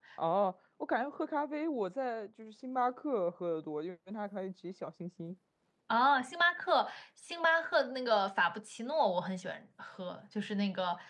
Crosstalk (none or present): none